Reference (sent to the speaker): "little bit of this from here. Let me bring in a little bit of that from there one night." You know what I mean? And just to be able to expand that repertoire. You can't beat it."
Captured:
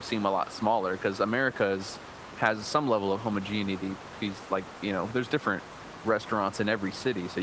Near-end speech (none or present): present